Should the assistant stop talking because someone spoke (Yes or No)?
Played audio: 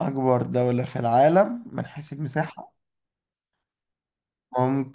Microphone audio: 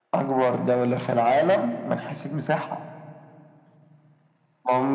No